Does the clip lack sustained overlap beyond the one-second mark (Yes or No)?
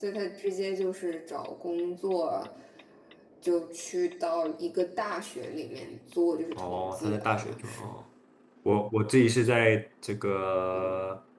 No